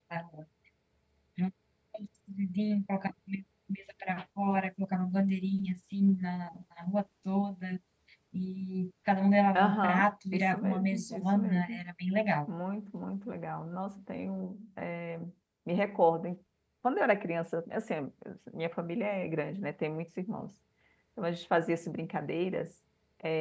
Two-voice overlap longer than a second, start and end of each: 9.6-11.8

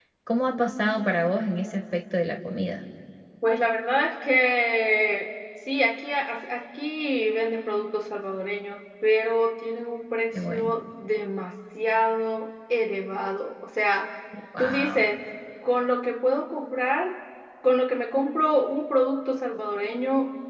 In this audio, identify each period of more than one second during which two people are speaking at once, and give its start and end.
none

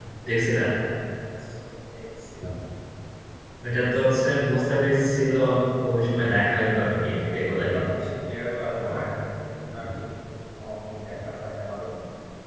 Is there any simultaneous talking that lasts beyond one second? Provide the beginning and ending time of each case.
none

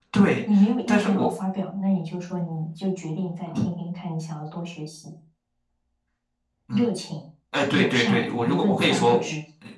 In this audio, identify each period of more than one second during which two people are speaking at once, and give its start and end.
7.7-9.3

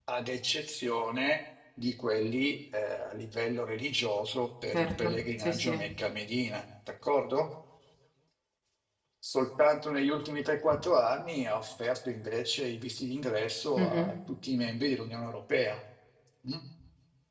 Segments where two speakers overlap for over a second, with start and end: 4.6-5.9

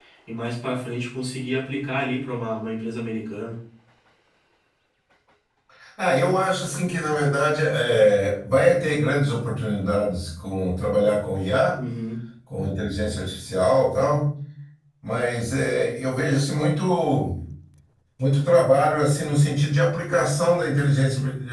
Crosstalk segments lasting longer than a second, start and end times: none

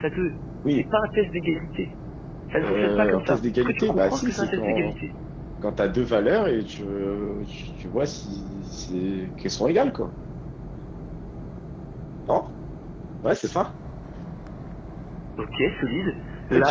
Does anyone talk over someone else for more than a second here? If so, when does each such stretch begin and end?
2.6-4.9

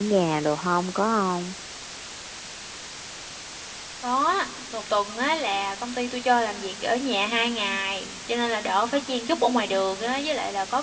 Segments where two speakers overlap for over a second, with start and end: none

